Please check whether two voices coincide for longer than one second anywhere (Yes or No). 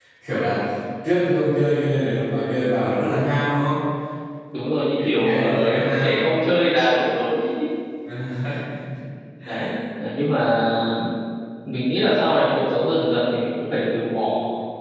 Yes